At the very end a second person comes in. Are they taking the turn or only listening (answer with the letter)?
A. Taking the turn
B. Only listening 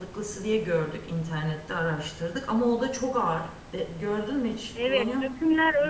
A